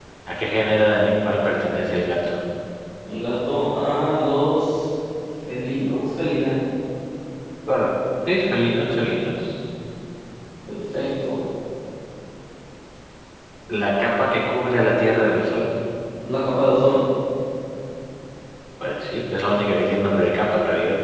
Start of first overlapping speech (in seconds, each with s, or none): none